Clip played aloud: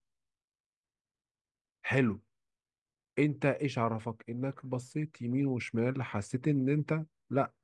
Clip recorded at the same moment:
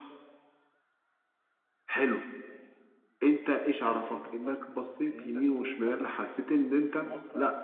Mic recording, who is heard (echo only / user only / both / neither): both